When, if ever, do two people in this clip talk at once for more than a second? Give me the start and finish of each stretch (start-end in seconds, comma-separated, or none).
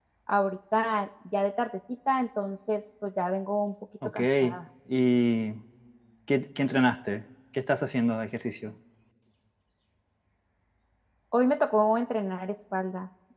none